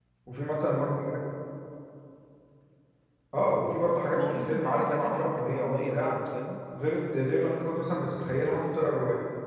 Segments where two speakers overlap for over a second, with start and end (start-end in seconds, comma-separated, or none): 4.1-6.2